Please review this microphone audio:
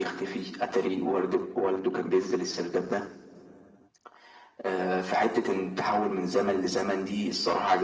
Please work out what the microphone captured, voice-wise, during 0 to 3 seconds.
echo only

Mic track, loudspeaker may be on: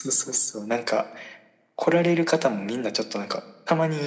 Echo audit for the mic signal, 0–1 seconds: echo only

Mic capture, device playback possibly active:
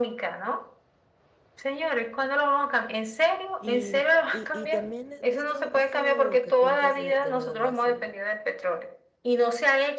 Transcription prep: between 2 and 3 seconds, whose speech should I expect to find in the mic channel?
echo only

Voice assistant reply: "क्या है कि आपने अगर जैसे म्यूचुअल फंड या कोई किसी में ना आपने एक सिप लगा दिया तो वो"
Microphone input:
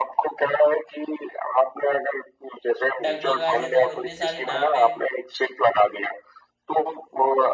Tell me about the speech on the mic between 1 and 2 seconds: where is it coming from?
echo only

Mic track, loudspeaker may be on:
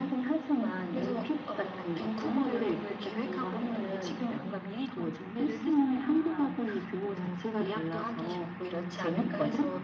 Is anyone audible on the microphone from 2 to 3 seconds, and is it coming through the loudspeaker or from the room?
echo only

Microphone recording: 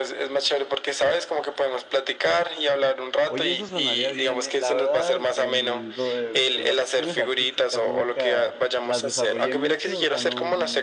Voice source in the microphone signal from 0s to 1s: echo only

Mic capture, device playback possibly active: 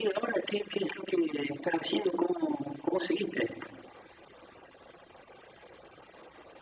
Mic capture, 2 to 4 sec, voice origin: echo only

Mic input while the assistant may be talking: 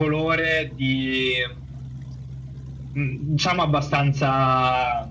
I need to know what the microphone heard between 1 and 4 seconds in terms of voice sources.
echo only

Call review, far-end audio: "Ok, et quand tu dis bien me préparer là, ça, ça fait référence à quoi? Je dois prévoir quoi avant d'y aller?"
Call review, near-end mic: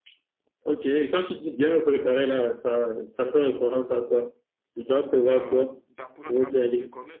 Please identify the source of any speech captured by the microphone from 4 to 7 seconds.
both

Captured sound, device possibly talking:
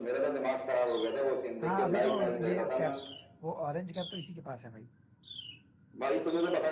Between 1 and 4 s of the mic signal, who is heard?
both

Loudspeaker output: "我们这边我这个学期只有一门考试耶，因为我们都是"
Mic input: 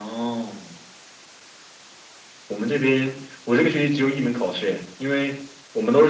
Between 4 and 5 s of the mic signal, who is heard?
echo only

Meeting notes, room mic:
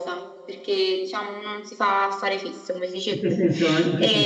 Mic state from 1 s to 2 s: echo only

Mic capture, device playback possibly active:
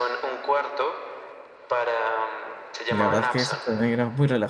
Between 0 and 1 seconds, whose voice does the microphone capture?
echo only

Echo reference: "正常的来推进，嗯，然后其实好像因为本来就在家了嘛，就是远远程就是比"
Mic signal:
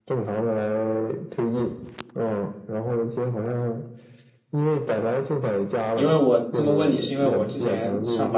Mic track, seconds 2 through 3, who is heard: echo only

